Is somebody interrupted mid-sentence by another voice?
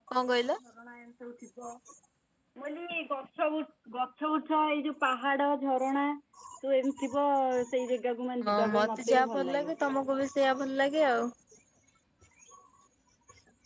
Yes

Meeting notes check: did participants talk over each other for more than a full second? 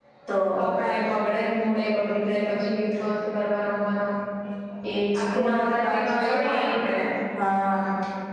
Yes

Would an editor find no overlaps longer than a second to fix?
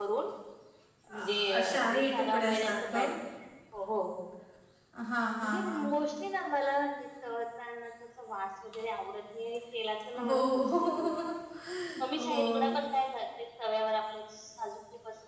No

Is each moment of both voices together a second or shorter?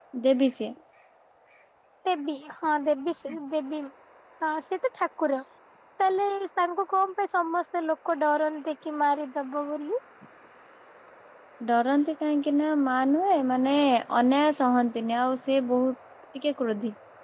Yes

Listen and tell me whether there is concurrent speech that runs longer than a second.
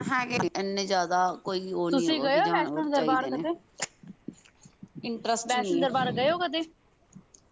Yes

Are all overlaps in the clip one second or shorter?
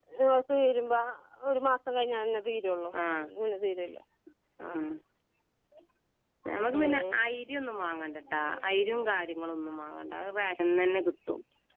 Yes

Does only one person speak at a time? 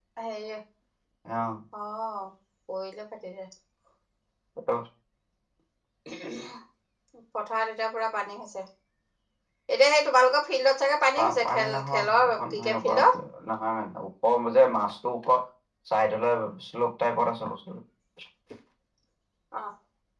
No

